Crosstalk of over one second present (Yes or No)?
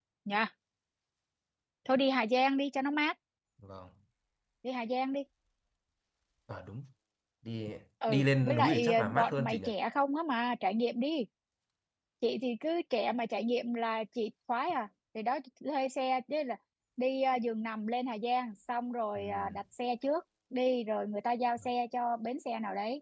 Yes